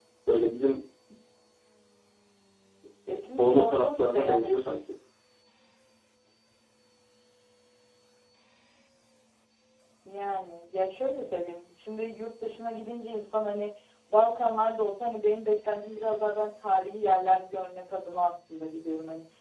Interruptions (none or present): present